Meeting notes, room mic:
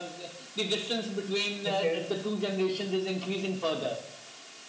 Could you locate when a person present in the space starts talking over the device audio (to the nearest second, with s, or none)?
2 s